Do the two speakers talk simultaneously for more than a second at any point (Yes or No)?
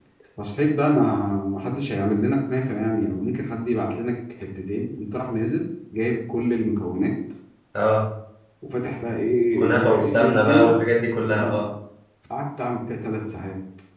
Yes